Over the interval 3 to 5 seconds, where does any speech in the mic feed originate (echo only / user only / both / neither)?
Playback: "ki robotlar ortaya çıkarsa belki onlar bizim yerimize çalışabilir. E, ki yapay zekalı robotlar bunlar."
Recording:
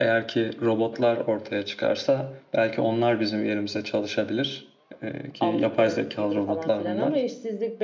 echo only